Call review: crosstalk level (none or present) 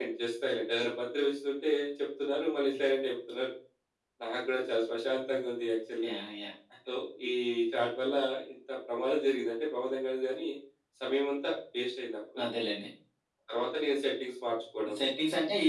none